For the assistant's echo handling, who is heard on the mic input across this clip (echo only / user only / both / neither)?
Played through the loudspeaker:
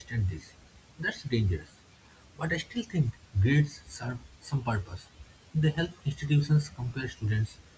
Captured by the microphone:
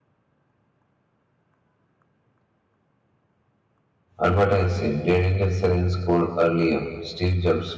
user only